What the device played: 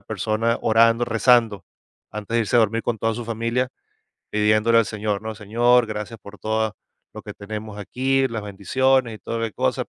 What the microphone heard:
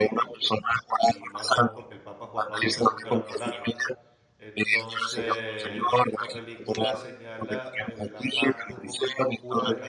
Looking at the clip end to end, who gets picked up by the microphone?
both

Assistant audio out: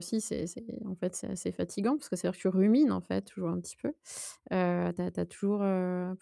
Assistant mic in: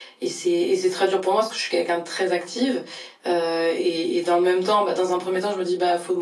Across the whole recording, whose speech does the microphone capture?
user only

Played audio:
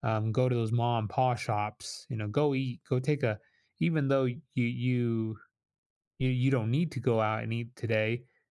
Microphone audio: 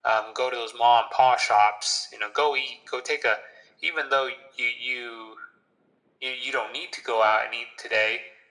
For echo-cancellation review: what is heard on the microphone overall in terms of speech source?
echo only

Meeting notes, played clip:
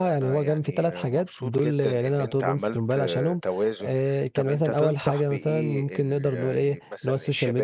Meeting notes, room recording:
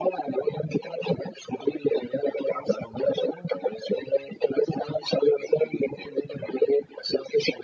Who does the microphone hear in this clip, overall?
echo only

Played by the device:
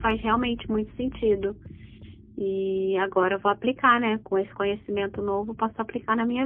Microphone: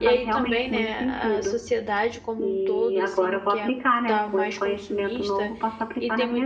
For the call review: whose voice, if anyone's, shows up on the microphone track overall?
both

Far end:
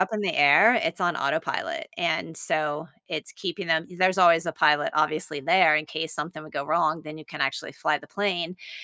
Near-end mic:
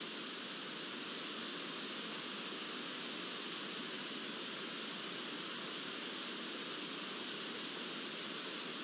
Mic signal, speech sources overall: neither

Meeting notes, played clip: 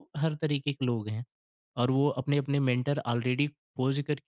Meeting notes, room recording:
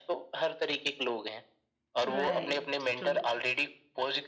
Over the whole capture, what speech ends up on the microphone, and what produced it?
both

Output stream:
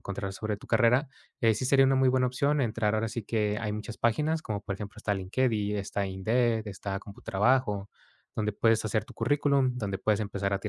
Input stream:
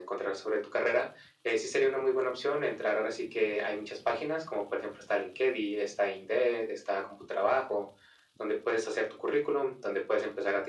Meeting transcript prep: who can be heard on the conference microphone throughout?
echo only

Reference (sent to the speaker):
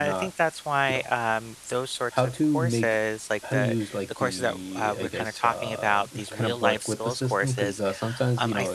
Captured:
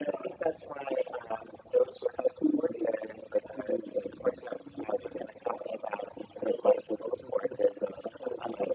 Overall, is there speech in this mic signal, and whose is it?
echo only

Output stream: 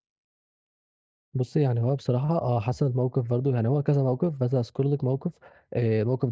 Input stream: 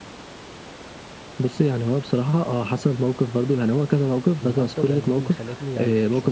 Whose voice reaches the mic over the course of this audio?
both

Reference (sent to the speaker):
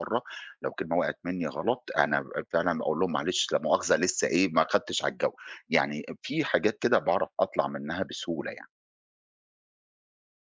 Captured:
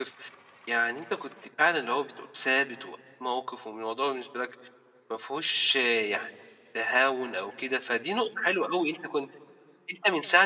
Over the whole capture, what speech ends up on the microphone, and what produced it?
user only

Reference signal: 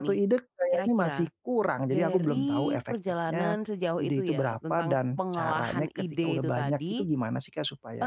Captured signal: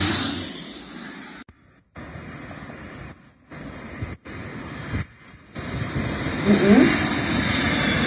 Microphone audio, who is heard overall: user only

